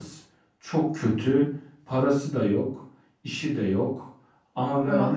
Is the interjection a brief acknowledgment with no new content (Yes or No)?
Yes